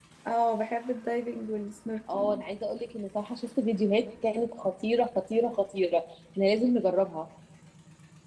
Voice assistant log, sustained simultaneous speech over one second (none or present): none